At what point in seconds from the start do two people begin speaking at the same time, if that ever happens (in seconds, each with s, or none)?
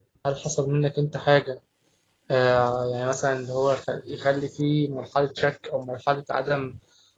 none